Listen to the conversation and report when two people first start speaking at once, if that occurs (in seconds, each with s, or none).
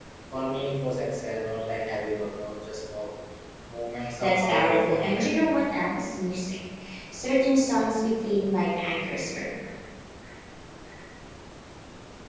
4.2 s